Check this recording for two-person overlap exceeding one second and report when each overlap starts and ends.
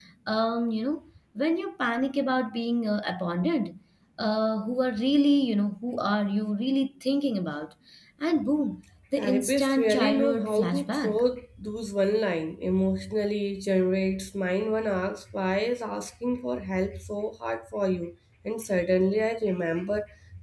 9.2-11.2

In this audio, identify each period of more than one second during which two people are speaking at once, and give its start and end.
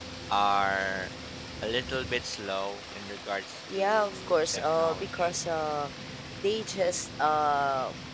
3.7-5.3

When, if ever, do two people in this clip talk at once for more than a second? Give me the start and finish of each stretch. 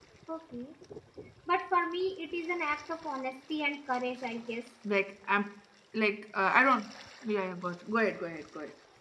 none

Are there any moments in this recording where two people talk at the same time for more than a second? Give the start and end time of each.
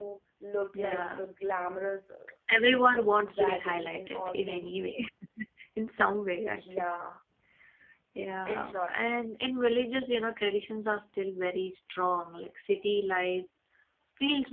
2.9-4.7

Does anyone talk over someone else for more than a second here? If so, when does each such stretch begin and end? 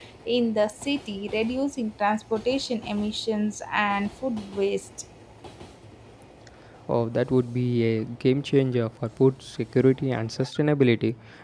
none

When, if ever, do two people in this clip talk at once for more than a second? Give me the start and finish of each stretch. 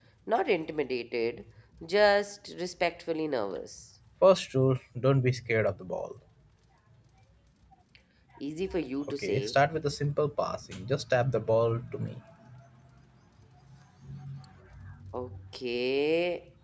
none

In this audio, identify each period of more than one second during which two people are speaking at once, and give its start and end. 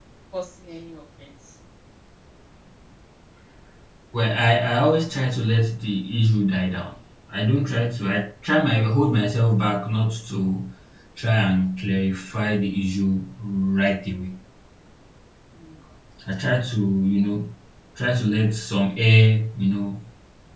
none

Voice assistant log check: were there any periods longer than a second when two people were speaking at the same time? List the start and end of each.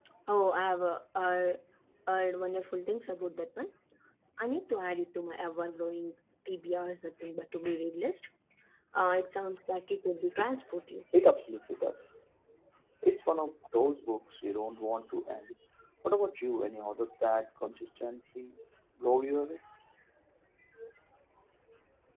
none

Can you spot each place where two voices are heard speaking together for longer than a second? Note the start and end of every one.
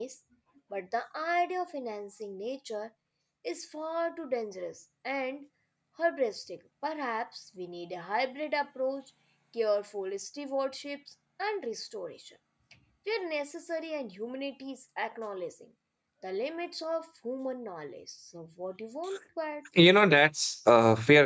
none

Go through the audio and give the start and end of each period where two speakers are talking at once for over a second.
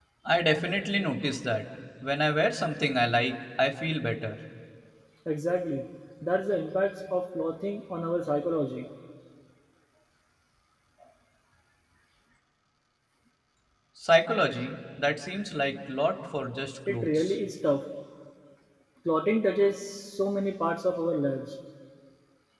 none

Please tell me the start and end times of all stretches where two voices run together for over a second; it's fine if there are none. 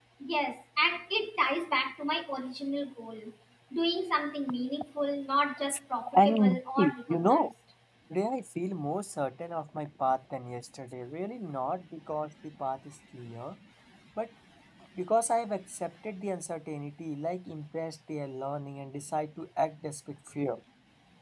6.2-7.5

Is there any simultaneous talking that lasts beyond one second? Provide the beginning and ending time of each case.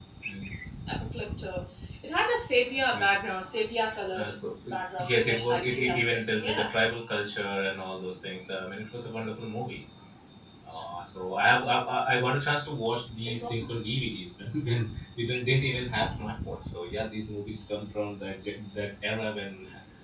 5.1-6.7

